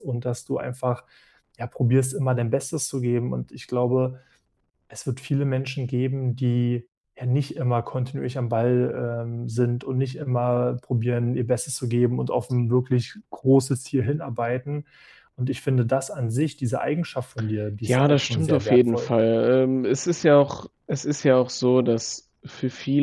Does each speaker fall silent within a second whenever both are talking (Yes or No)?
No